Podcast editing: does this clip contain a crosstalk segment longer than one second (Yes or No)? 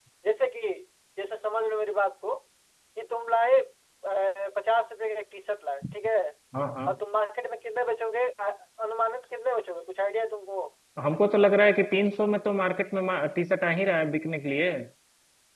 No